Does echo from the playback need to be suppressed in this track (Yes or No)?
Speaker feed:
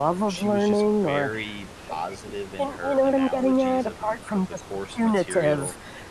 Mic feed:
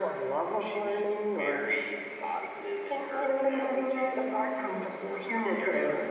Yes